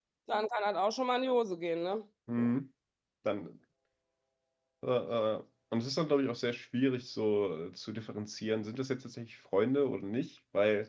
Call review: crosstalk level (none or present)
none